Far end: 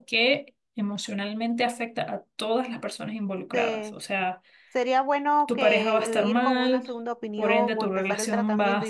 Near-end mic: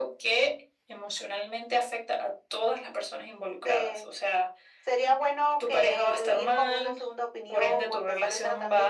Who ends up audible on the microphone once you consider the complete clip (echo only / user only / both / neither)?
echo only